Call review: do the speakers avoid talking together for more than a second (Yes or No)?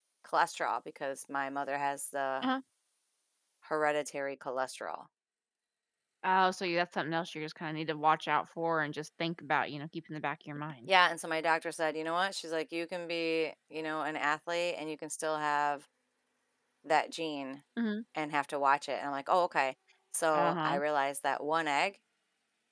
Yes